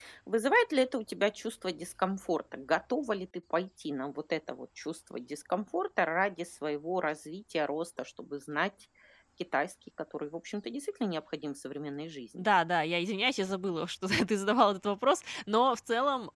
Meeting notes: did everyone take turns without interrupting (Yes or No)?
Yes